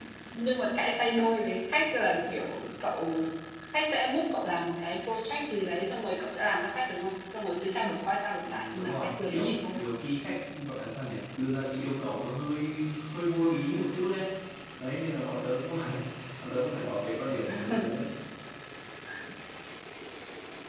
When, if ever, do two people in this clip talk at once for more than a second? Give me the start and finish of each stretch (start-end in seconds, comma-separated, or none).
8.4-9.8